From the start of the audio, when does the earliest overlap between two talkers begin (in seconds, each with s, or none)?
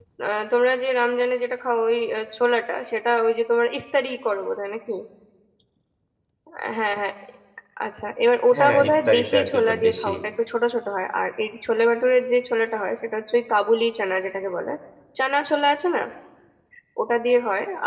8.5 s